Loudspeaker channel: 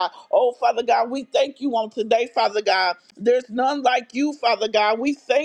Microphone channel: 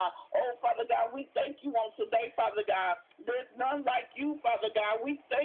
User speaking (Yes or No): No